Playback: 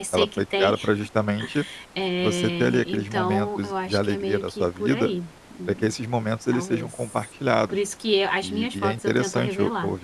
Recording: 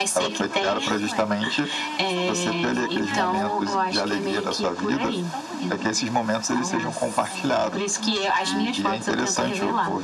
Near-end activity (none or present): present